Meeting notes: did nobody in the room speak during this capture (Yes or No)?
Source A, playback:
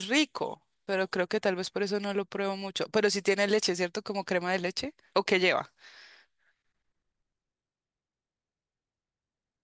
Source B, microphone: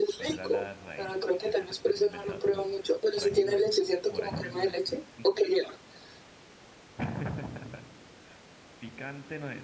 No